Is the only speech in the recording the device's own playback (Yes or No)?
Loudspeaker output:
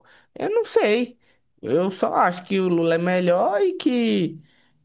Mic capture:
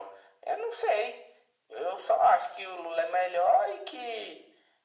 Yes